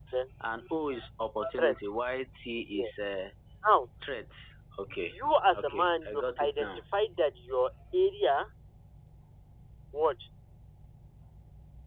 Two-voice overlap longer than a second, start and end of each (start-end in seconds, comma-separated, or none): 5.5-6.8